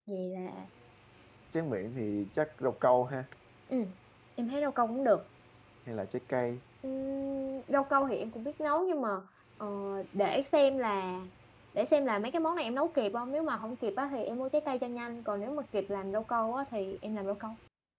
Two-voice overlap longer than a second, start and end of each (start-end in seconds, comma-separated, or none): none